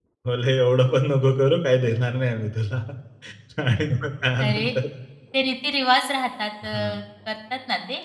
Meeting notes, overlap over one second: none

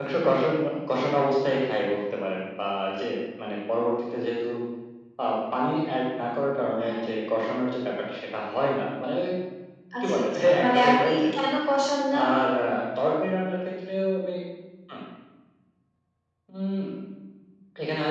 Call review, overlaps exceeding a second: present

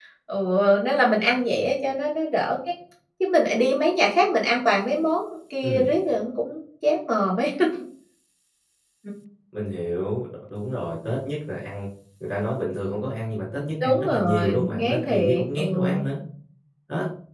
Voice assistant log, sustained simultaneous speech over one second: present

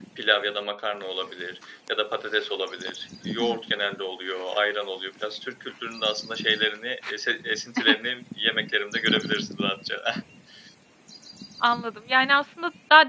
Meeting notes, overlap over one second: none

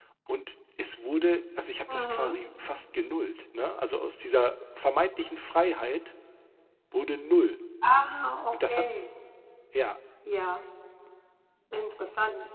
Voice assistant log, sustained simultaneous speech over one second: none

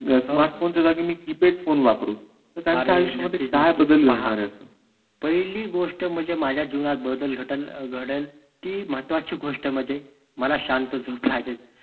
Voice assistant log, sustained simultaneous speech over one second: present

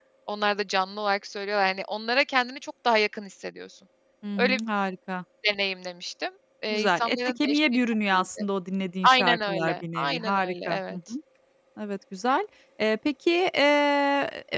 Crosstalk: present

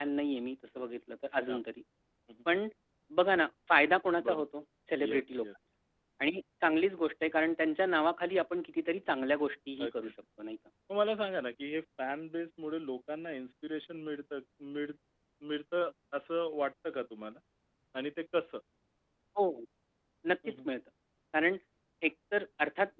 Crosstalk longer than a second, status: none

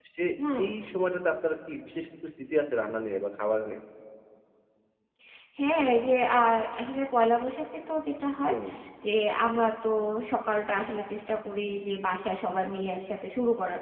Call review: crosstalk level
none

